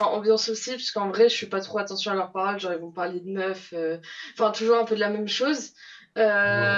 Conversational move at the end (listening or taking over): listening